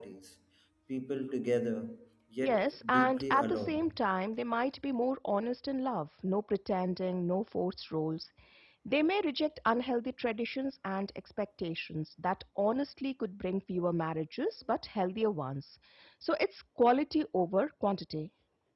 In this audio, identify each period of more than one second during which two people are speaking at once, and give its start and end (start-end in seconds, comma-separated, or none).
2.4-4.0